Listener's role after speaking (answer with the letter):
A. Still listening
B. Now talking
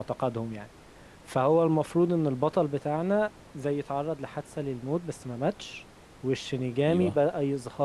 A